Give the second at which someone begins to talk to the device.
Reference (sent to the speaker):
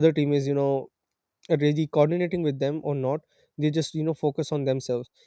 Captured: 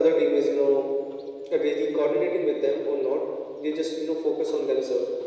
none

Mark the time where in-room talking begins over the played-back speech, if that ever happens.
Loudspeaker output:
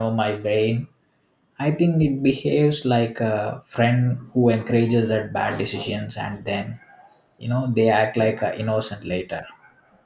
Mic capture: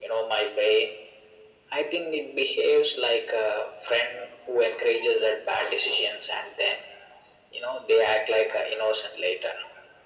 none

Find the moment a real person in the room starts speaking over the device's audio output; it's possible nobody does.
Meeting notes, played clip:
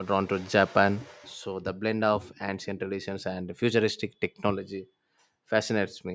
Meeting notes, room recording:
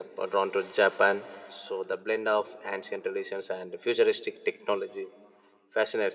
none

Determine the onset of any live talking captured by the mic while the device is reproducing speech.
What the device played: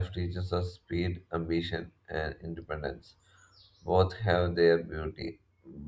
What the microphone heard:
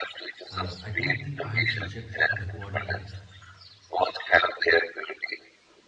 0.5 s

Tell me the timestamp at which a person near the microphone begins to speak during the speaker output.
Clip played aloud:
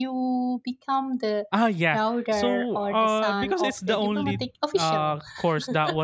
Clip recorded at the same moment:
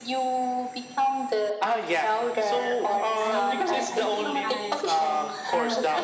2.3 s

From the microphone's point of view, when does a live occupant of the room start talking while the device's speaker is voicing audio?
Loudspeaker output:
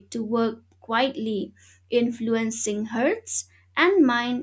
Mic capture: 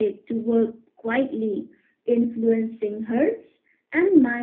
none

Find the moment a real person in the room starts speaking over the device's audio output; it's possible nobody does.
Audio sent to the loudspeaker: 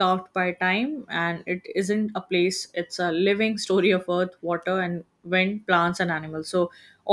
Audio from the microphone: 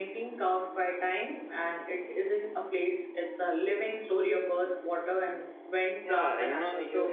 6.0 s

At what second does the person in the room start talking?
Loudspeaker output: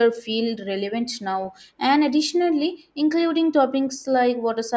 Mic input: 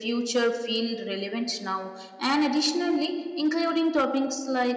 none

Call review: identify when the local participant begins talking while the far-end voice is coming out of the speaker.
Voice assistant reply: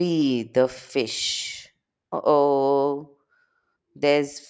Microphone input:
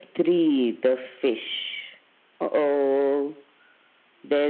none

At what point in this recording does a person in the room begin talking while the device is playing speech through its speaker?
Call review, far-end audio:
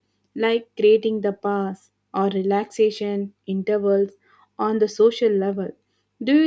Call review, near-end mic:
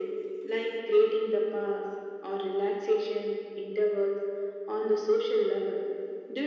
none

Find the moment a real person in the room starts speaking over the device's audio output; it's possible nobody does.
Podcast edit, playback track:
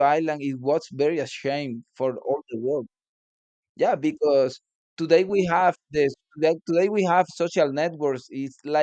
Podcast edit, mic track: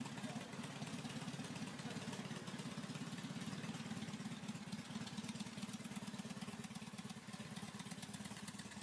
none

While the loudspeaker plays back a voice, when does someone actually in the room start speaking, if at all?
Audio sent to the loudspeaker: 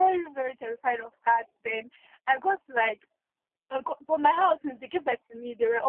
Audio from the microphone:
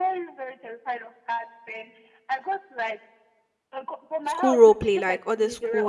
4.2 s

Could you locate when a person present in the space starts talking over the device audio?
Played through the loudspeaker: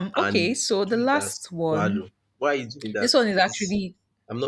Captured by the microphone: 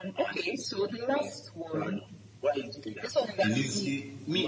3.4 s

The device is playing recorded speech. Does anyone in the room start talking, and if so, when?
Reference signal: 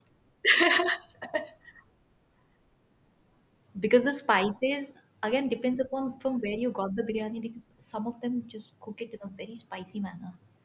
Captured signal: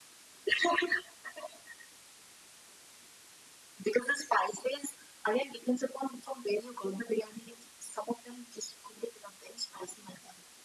none

